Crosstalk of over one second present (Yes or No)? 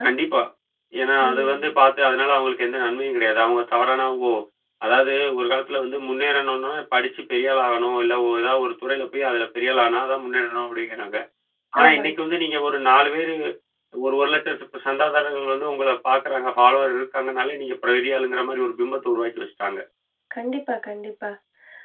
No